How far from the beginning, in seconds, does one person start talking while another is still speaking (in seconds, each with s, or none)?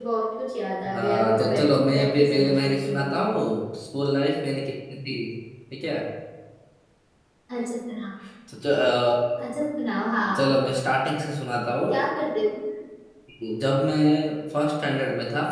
0.9 s